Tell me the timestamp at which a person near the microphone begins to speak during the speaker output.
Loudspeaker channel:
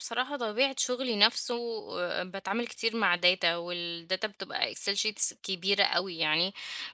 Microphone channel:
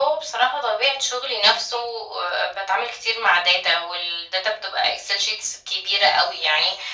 none

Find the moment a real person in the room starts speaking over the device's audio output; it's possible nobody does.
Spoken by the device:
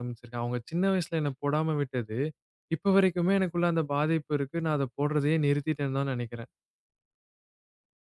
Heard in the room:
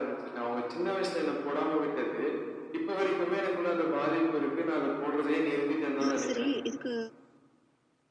6.0 s

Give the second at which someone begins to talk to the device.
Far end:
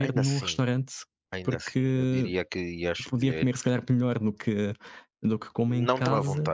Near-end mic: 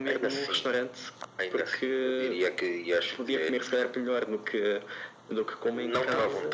none

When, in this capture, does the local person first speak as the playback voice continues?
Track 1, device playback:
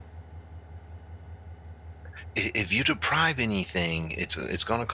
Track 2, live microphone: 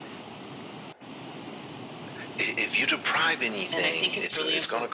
3.7 s

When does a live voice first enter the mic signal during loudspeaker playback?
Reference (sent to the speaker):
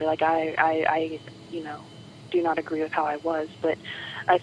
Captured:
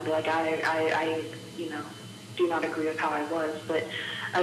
none

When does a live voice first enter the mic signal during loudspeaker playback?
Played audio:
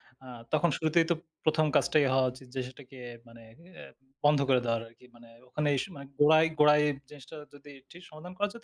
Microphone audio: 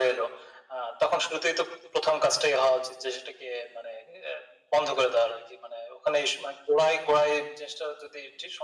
none

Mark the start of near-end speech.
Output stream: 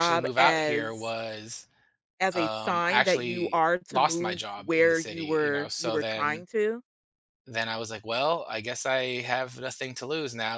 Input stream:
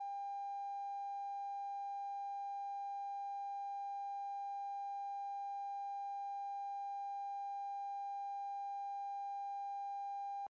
none

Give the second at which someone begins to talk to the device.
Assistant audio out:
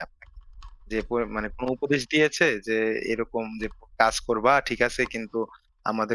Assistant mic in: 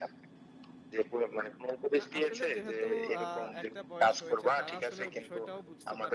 2.0 s

